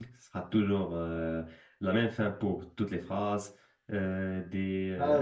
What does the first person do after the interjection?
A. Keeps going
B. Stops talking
A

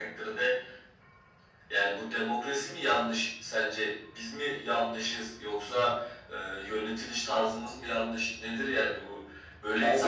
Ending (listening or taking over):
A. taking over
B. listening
B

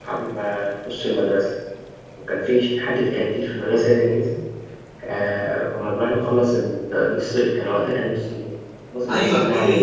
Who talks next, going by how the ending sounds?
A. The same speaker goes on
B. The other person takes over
B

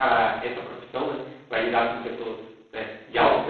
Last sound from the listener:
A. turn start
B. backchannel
A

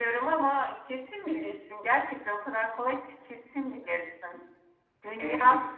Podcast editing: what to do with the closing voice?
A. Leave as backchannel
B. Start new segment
A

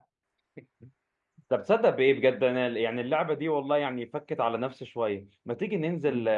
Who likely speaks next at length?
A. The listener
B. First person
B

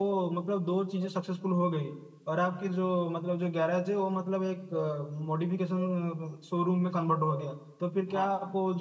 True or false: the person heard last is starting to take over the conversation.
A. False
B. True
A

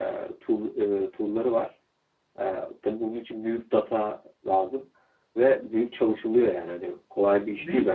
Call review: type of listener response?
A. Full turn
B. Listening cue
A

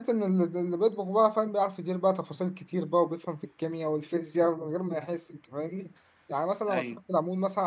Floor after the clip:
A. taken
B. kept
B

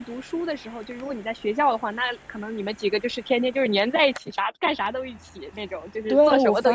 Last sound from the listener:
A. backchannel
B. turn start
B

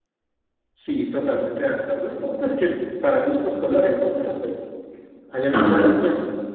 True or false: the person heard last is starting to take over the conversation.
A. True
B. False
B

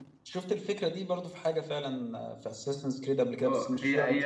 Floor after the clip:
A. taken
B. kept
A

